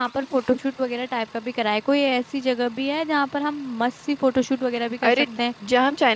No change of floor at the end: No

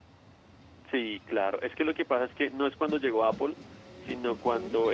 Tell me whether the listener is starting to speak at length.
No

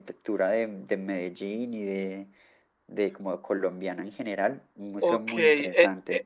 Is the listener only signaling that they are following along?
No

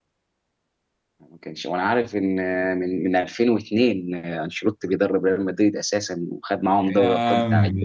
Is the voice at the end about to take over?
Yes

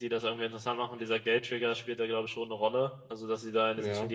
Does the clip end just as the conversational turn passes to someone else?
No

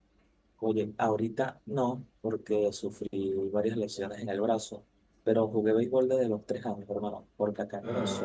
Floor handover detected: No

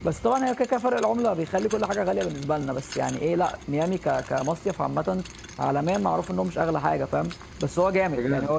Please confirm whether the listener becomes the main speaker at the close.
No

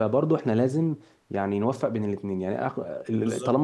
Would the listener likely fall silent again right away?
Yes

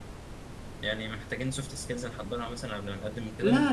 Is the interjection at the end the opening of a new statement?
Yes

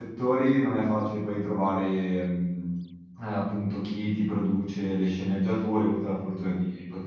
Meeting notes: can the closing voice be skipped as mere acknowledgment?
Yes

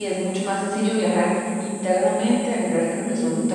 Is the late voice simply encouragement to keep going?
Yes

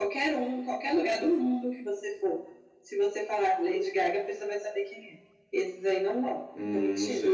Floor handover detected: Yes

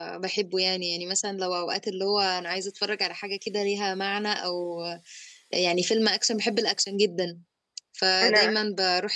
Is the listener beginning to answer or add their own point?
No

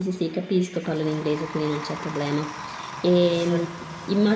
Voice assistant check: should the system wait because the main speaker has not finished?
Yes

